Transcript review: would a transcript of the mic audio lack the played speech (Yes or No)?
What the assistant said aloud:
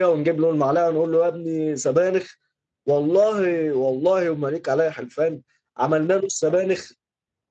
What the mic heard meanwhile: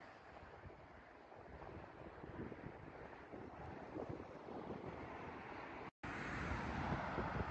Yes